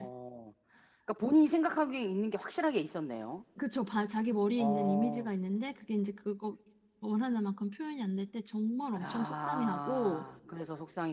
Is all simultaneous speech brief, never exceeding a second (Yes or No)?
No